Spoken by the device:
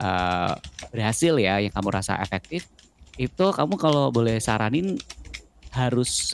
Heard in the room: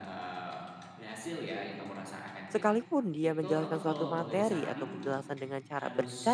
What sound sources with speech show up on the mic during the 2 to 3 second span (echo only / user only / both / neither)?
both